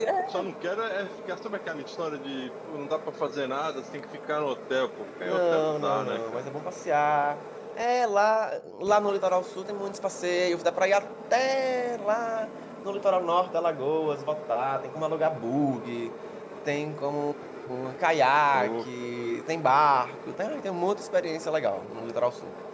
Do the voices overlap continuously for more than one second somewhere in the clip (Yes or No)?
Yes